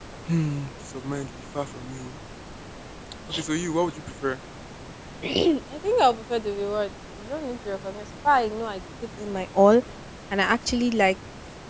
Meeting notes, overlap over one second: none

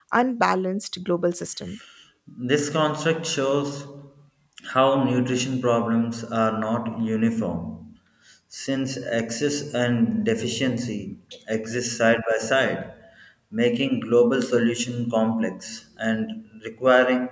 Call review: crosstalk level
none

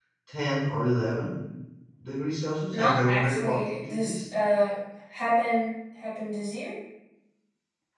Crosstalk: present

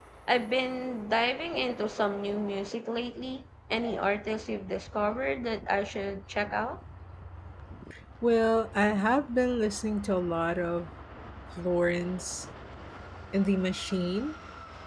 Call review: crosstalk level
none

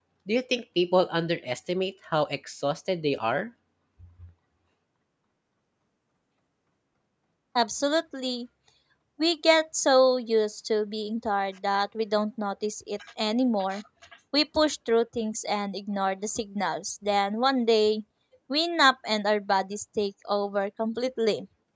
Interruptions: none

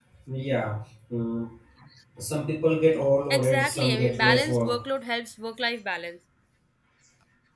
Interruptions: present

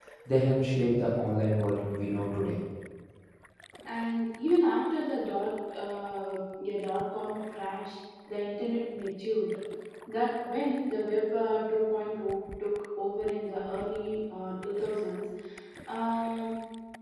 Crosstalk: none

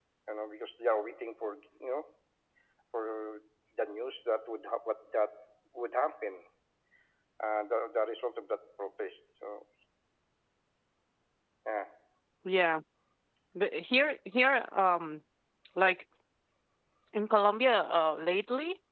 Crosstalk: none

